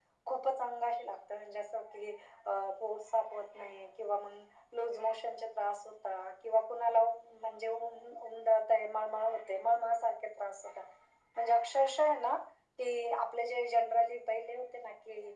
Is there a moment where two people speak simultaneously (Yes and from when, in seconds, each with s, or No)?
No